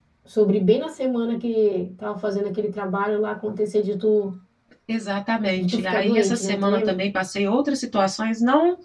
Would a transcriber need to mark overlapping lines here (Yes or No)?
Yes